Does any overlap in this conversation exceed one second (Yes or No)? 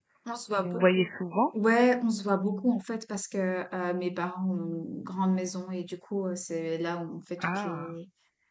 No